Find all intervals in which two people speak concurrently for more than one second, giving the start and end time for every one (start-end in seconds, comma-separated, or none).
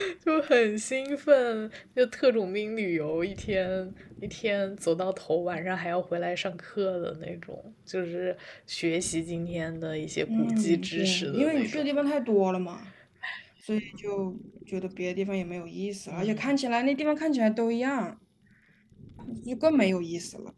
10.3-11.8